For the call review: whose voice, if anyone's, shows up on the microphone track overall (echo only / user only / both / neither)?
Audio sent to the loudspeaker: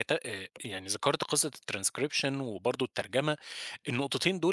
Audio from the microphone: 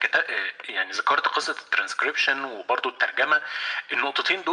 echo only